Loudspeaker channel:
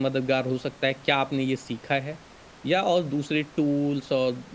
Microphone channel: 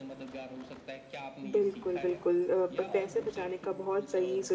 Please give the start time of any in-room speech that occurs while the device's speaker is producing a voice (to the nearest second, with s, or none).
1 s